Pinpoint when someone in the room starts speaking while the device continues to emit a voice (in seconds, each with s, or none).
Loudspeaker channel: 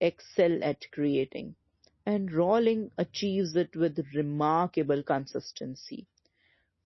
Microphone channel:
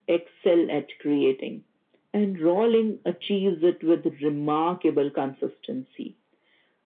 none